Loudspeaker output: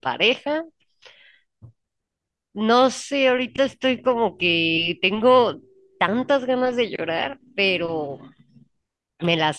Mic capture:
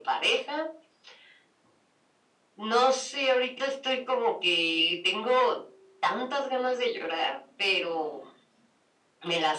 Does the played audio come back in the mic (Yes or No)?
Yes